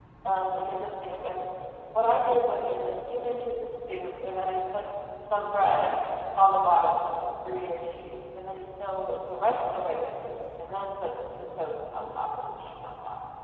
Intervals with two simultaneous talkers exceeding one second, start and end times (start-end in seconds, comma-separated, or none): none